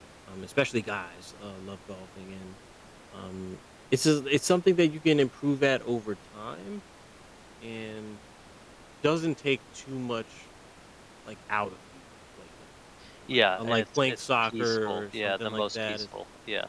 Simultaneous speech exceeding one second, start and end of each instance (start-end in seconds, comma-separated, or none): 13.3-16.1